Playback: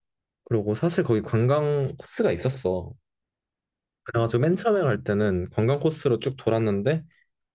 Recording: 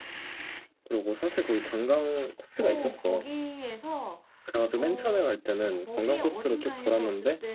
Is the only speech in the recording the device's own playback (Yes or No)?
No